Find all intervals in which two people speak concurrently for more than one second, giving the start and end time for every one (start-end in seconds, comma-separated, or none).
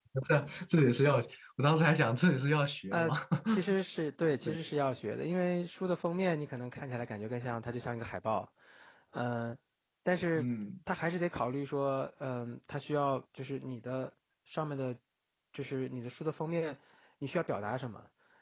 none